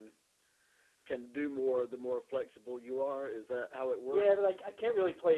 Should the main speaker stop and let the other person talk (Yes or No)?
Yes